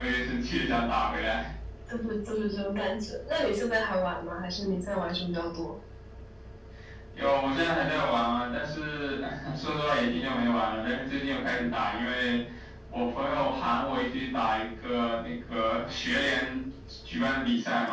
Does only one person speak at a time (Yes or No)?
Yes